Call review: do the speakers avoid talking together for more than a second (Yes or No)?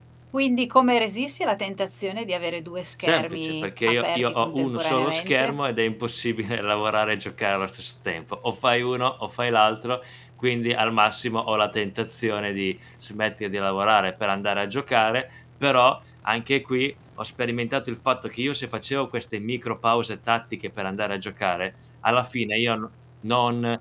No